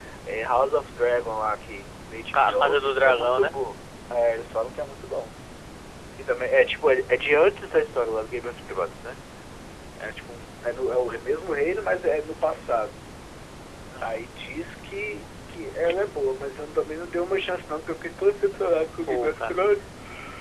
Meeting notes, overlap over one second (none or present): present